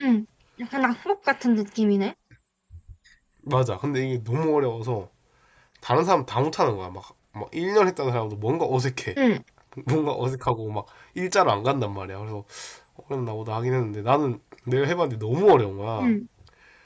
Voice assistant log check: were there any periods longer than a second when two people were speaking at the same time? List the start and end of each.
none

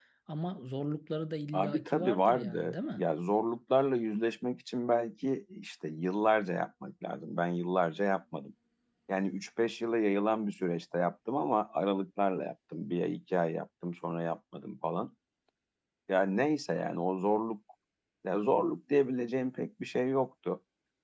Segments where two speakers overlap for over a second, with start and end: 1.5-3.0

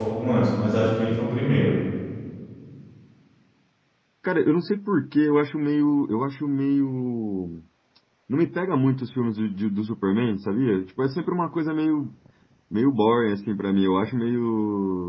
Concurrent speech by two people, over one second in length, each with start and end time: none

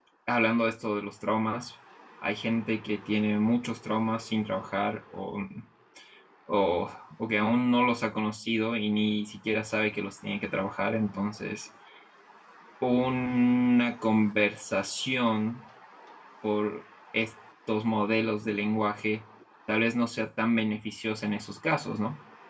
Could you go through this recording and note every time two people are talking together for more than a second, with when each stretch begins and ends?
none

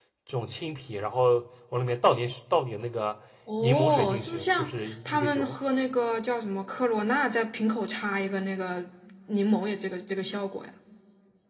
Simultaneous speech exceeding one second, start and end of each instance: 3.6-5.5

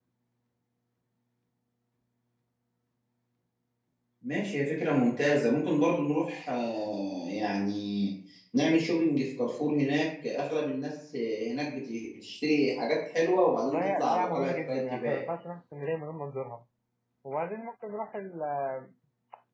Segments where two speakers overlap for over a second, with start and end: 13.6-15.2

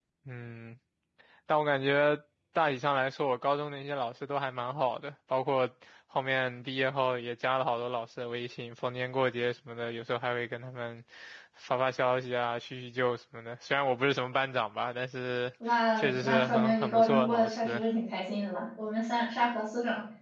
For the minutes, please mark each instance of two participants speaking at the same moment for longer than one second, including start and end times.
16.0-17.8

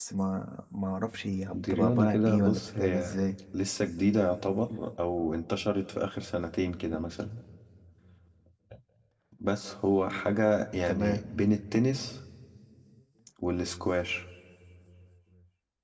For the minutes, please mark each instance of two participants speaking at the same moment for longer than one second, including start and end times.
1.5-3.1

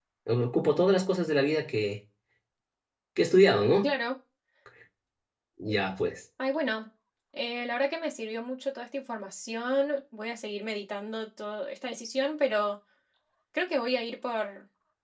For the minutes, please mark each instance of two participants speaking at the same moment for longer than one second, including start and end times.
none

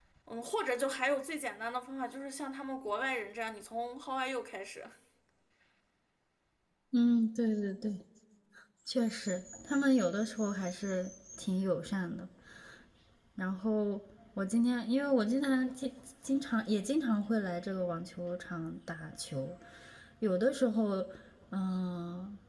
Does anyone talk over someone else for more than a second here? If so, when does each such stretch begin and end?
none

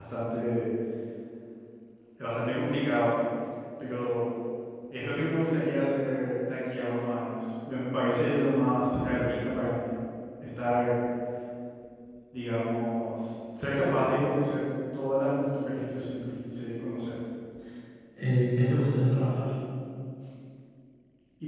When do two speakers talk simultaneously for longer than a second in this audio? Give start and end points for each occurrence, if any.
none

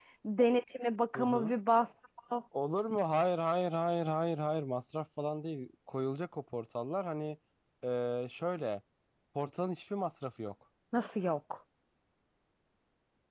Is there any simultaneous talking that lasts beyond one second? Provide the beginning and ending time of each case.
none

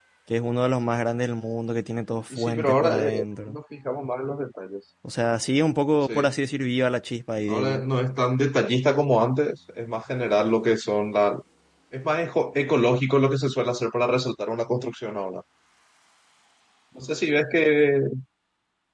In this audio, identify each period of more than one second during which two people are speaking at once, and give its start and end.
2.3-3.6

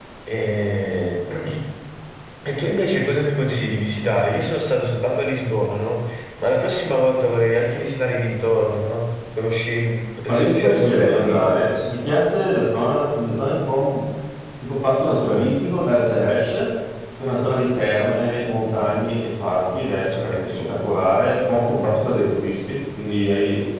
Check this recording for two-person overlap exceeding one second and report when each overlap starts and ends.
10.2-11.5

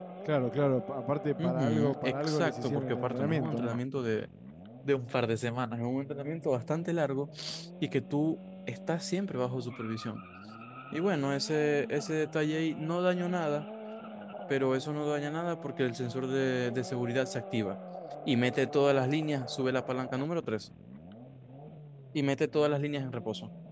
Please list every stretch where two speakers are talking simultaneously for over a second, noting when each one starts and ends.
1.4-3.8

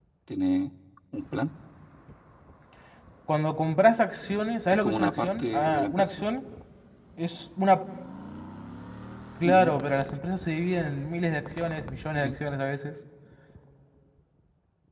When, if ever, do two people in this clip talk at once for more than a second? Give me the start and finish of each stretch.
4.7-6.3

